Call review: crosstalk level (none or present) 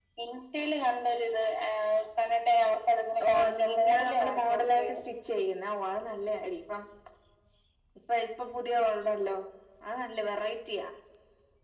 present